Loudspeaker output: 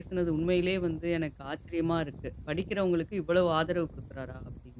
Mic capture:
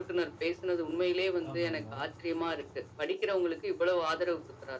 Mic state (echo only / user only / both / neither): both